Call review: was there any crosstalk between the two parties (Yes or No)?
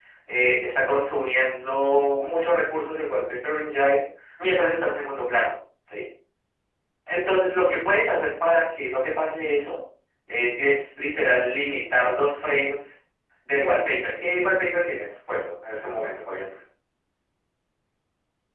No